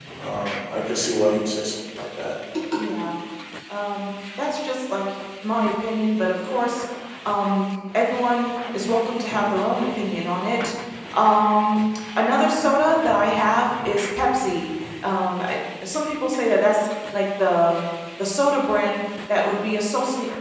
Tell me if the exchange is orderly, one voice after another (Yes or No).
Yes